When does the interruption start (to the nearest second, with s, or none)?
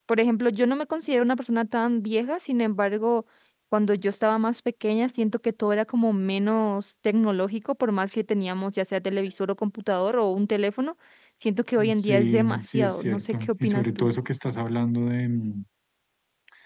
12 s